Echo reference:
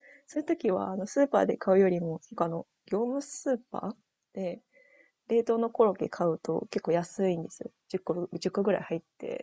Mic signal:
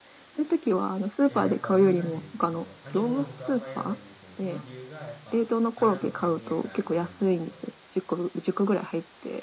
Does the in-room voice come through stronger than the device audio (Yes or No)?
No